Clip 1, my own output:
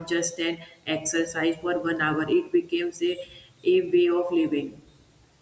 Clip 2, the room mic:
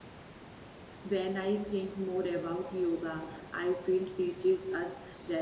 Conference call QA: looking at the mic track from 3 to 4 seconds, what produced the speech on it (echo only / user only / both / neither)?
user only